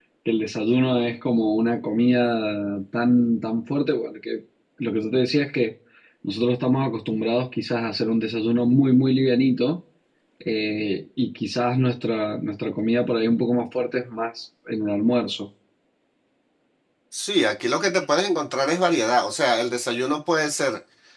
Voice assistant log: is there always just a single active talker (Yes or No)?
Yes